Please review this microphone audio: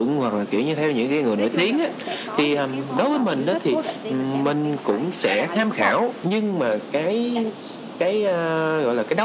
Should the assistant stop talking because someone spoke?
Yes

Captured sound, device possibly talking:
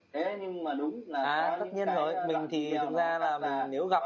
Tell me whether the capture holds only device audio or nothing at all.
No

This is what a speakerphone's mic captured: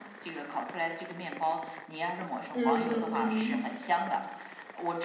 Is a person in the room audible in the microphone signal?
Yes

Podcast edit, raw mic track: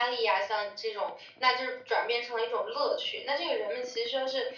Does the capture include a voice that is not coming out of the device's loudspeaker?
No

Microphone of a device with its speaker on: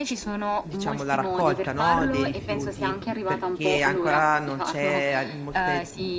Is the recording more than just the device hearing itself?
Yes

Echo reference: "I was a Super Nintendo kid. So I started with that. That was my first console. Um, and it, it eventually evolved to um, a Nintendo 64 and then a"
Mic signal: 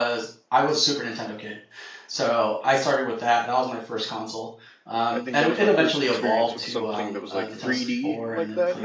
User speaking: Yes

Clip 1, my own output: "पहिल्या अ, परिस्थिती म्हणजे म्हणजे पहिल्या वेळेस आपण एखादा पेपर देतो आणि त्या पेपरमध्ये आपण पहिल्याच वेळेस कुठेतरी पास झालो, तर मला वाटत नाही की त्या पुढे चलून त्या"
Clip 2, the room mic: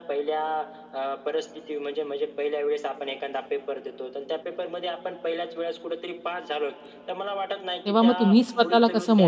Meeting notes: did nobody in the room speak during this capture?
No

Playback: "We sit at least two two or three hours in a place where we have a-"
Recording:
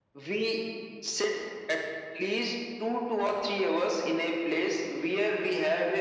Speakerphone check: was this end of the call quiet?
Yes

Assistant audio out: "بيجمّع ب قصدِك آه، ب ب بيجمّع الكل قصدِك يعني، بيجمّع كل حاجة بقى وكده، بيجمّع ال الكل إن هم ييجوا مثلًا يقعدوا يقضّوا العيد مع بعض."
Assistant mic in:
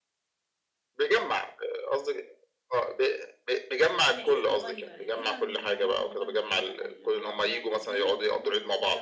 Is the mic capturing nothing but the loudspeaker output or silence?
No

